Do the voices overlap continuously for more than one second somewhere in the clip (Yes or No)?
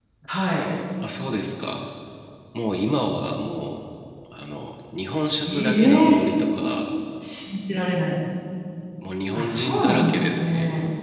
Yes